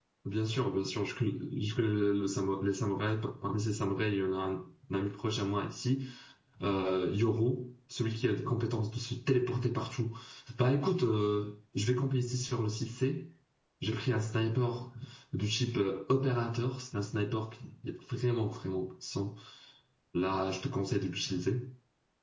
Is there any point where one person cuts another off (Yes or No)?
No